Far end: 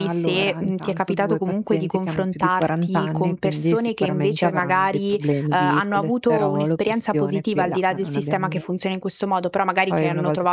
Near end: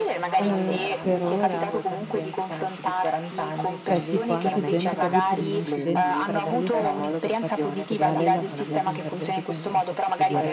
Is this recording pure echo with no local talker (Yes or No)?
No